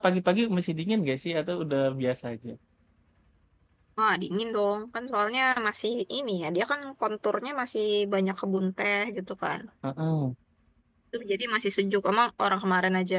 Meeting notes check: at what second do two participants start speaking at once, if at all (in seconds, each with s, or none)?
none